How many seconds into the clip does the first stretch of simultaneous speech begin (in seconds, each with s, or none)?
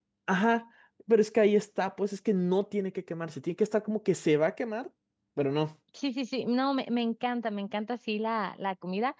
none